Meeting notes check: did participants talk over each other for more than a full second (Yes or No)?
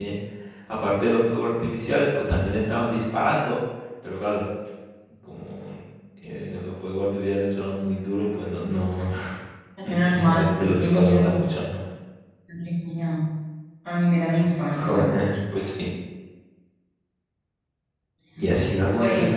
Yes